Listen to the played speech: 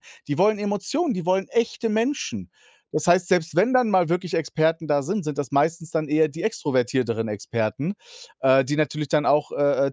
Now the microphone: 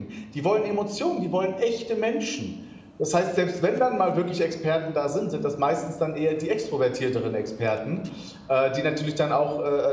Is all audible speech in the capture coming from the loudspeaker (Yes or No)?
Yes